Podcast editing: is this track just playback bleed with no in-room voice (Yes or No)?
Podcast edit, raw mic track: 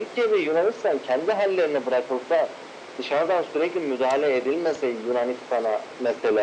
Yes